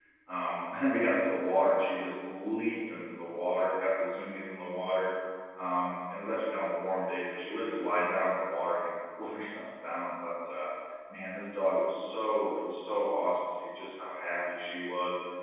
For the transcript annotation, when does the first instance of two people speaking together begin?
none

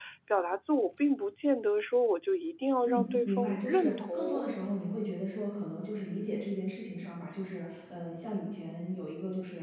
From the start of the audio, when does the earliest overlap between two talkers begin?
2.8 s

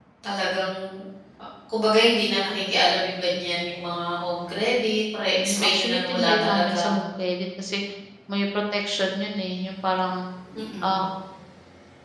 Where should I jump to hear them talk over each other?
5.4 s

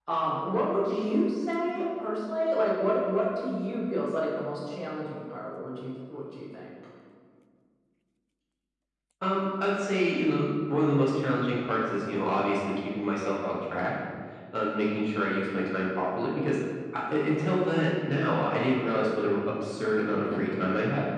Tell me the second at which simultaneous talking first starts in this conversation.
none

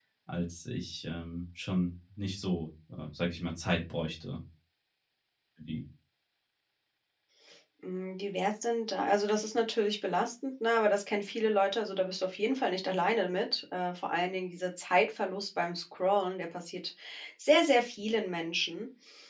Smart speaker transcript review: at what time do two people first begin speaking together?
none

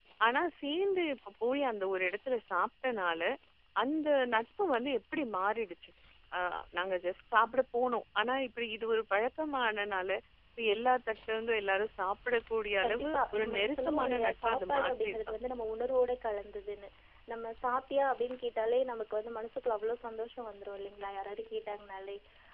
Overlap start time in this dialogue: 12.8 s

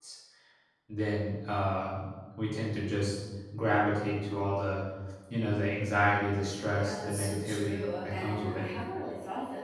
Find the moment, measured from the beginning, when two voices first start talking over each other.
6.8 s

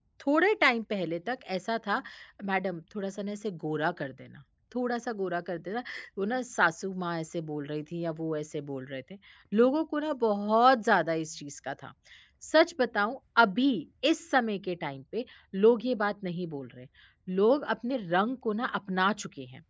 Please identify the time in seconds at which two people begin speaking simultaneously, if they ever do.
none

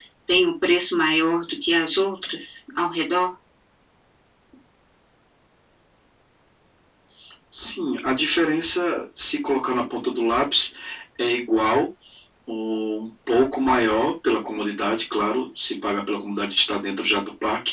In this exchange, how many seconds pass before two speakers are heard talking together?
none

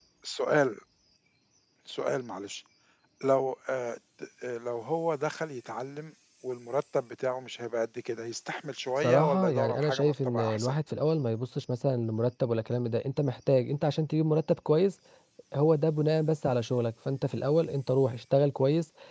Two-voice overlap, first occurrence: 9.0 s

